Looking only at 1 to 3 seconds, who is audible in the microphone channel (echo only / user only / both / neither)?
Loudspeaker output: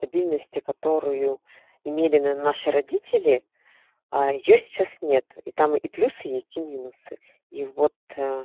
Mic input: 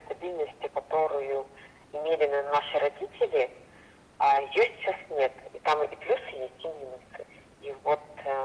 echo only